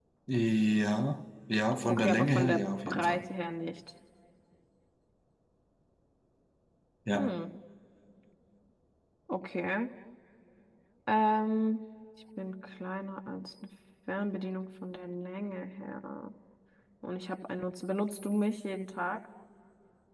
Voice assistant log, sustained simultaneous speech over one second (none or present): present